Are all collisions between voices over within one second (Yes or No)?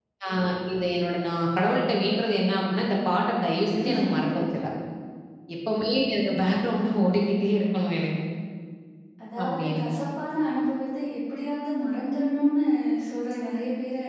Yes